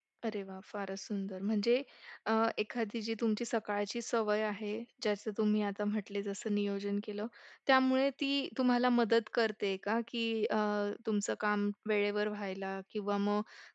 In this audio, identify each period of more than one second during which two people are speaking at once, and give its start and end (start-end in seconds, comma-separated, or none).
none